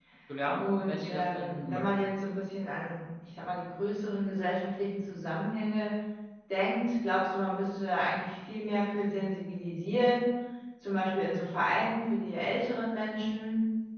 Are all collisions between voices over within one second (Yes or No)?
No